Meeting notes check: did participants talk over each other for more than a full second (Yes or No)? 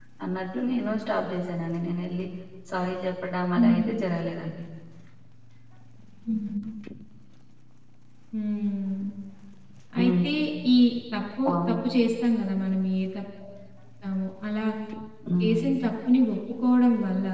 No